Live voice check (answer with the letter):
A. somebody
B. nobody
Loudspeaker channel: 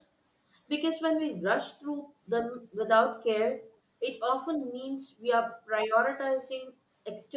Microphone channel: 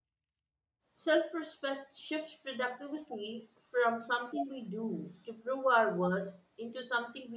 A